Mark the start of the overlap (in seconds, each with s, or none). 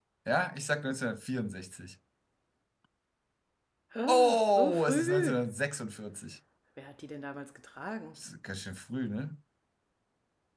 4.1 s